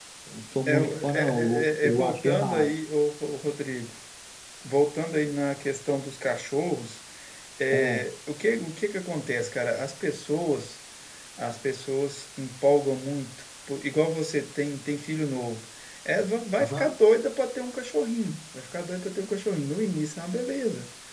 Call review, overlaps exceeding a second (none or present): present